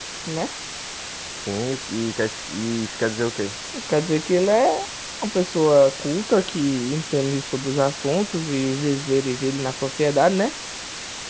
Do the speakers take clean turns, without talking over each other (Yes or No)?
Yes